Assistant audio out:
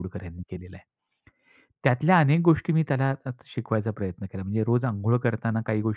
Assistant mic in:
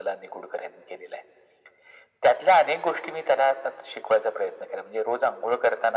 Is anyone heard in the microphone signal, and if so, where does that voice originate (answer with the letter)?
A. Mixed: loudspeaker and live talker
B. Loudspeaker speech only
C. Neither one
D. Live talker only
B